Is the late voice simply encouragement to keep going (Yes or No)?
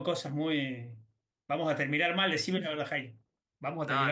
No